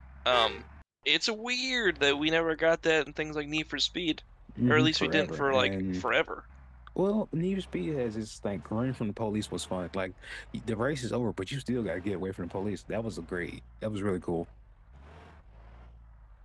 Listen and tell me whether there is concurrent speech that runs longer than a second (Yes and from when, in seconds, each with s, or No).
Yes, from 4.7 s